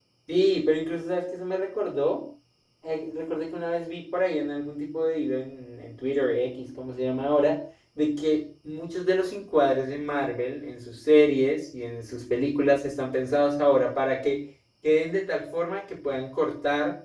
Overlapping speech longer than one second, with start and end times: none

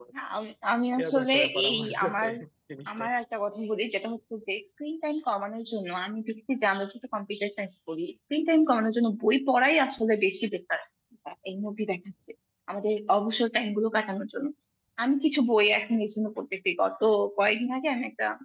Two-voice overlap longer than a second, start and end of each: 1.0-2.3

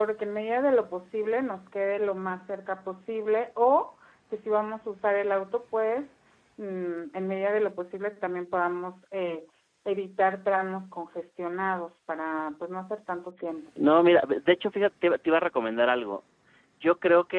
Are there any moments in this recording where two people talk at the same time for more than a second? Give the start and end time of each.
none

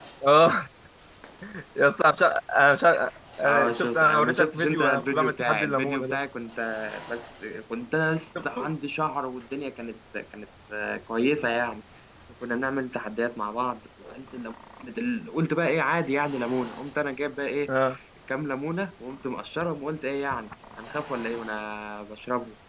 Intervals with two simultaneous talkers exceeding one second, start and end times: 3.4-6.2

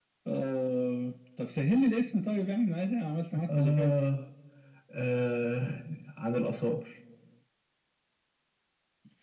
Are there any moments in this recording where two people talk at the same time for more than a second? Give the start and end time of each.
none

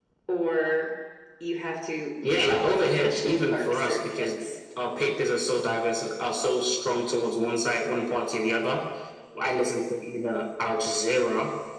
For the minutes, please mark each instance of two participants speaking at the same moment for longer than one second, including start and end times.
2.2-4.3

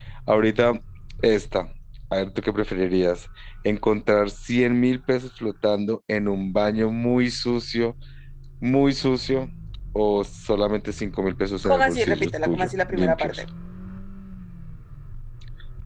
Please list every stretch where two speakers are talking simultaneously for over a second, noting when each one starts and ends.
11.6-13.4

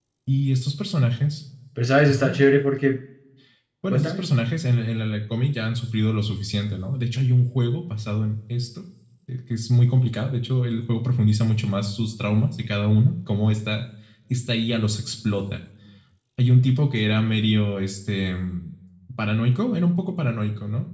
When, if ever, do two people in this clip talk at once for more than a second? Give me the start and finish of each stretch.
none

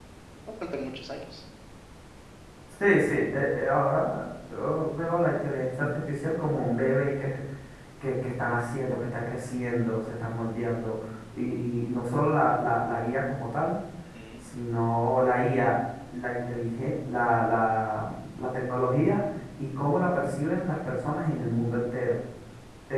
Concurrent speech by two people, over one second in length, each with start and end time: none

